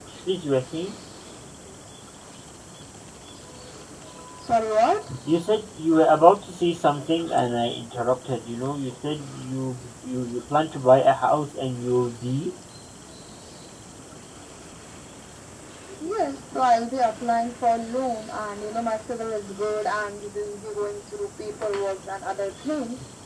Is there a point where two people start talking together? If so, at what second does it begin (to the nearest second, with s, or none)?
none